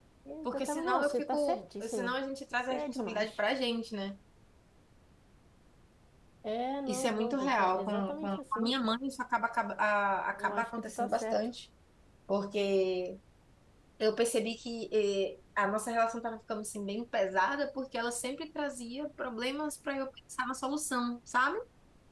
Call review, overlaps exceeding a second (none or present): present